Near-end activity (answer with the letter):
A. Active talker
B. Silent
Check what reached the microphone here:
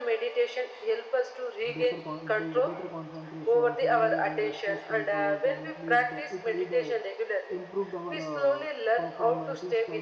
A